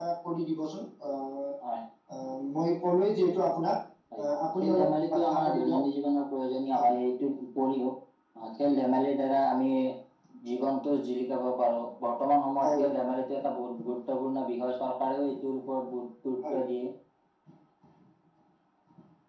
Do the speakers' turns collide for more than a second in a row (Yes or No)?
Yes